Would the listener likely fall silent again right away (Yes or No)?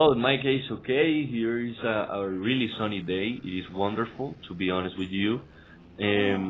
Yes